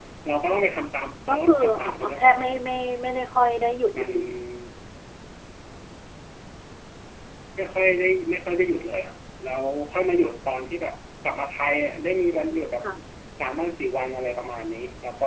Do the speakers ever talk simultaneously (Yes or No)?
Yes